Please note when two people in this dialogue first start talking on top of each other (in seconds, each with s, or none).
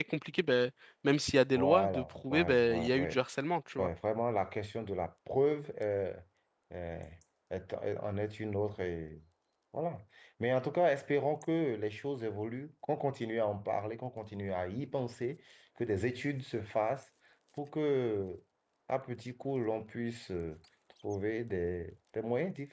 1.6 s